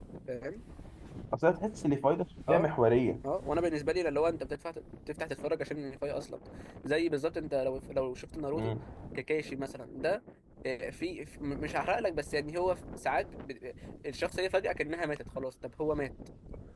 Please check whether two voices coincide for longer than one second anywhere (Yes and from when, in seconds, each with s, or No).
No